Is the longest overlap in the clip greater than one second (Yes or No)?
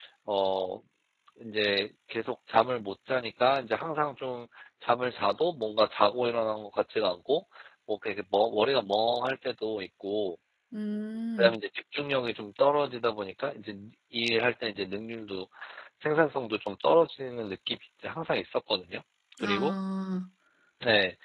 No